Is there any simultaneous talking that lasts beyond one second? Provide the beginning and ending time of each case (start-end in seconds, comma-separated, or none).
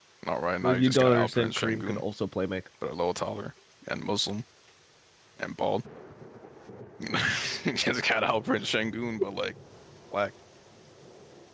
0.6-2.0